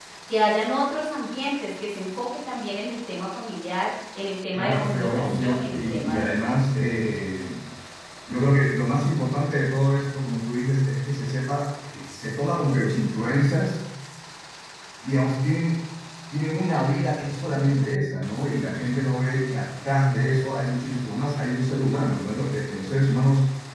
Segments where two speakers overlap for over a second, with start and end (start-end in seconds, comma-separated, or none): 4.5-6.6